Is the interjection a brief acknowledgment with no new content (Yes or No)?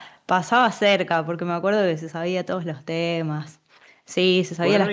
No